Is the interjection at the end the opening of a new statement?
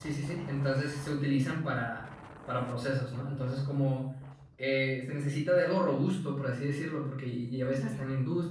No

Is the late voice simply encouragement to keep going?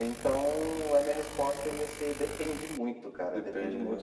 Yes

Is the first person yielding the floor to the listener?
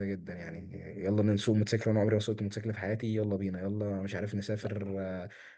No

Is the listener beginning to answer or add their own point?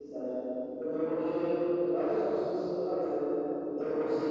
No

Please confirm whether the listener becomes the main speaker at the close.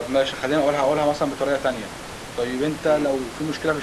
No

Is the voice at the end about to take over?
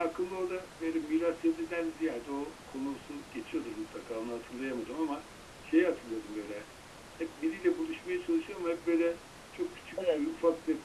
No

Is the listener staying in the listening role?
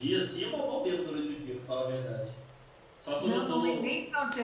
No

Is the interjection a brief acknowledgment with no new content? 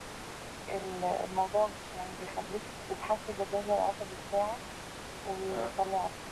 Yes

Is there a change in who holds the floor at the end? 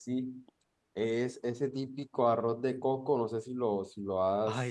No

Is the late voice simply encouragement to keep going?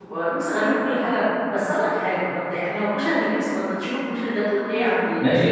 No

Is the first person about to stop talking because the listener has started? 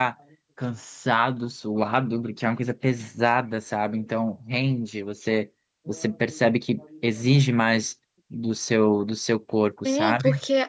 Yes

